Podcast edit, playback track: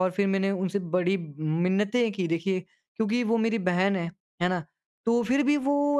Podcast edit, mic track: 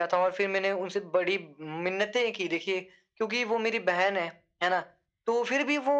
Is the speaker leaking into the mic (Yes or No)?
Yes